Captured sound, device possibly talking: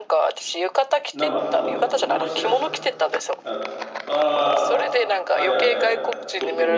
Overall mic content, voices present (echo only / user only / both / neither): both